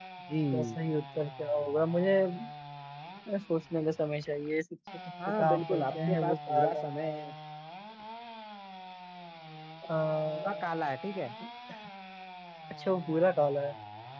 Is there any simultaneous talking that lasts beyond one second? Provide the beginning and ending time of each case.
5.3-6.9

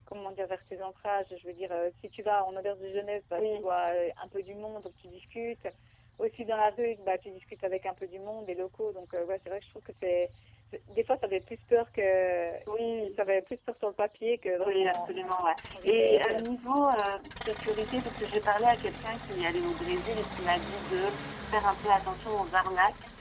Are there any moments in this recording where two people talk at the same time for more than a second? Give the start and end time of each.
14.6-16.4

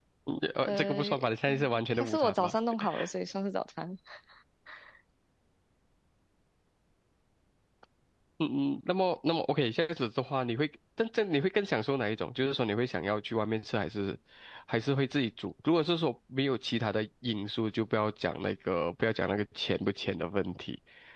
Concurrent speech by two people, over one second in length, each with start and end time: 0.6-2.5

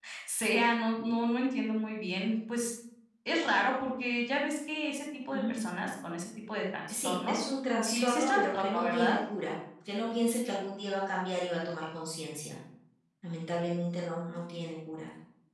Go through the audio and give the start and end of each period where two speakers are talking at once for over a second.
7.8-9.2

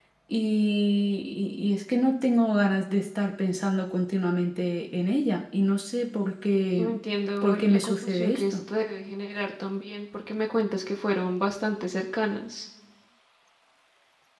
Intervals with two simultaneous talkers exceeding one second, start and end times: 7.4-8.6

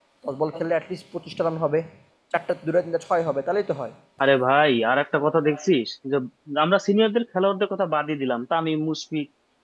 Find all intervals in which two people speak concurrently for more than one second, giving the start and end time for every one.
none

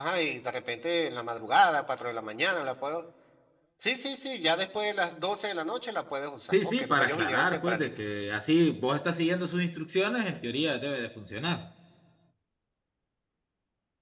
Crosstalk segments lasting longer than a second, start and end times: 6.5-7.9

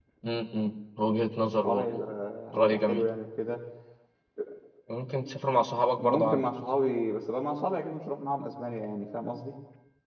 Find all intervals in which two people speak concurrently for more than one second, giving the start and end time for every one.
none

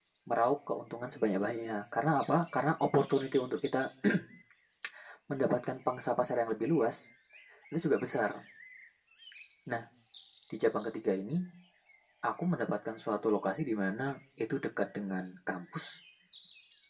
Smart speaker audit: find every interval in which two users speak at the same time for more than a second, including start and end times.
none

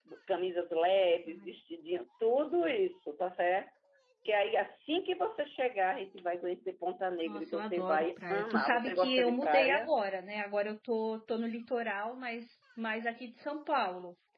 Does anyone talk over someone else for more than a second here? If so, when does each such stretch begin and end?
7.2-9.9

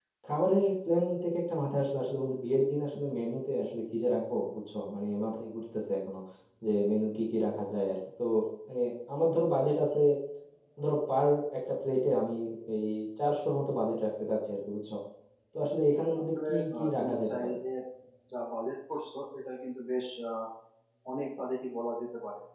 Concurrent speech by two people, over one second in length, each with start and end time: 16.2-17.6

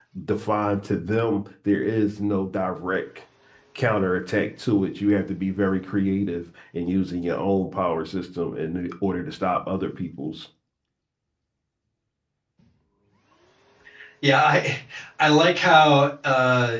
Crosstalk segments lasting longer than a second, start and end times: none

